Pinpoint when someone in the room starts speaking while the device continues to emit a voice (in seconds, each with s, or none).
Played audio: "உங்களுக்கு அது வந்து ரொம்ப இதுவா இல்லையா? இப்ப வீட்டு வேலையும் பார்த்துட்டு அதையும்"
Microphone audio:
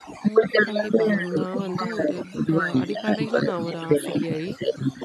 0.7 s